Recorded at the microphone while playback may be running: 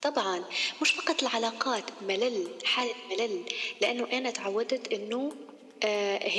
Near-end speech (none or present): none